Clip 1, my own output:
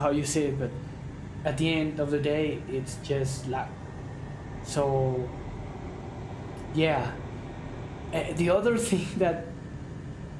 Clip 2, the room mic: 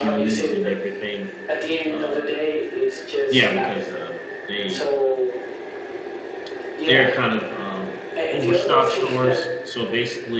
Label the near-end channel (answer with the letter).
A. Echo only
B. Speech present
B